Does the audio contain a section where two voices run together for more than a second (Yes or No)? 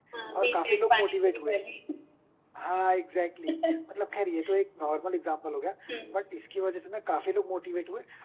Yes